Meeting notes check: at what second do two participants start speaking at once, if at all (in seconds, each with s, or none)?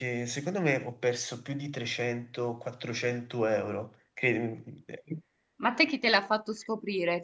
none